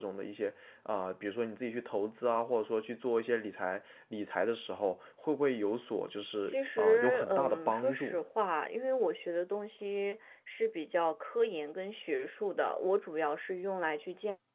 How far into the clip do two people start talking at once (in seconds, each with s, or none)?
6.5 s